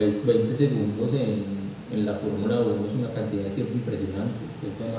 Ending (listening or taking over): taking over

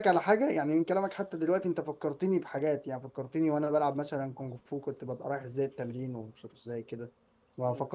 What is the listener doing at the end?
listening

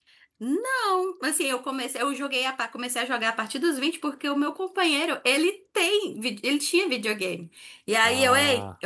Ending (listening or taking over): listening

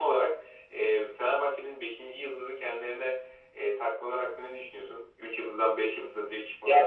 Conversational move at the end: taking over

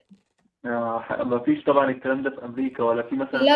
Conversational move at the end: taking over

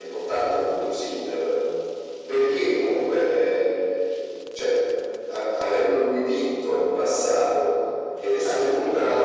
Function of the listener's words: taking over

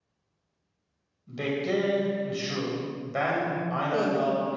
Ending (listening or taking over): listening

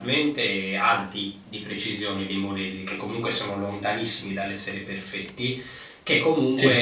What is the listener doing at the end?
listening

